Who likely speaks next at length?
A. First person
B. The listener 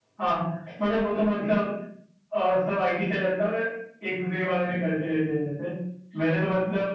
A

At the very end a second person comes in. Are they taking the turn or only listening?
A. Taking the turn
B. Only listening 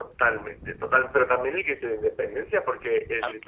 B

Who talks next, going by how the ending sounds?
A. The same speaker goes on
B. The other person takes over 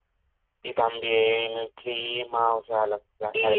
B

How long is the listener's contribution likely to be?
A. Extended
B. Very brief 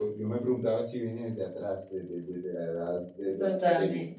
A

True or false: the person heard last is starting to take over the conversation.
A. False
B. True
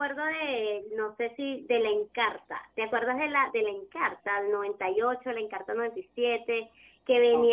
A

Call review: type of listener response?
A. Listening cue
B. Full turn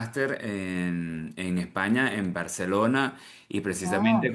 A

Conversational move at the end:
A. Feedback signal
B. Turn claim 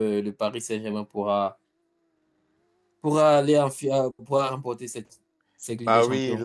B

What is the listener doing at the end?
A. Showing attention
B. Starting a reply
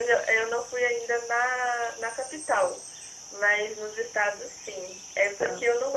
A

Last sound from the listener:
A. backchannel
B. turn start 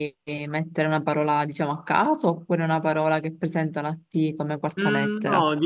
B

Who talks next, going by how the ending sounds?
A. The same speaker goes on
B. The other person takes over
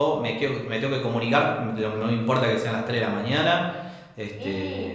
B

